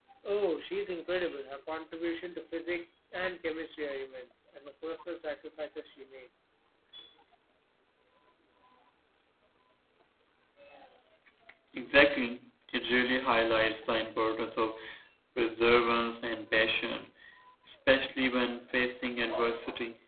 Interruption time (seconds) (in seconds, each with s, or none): none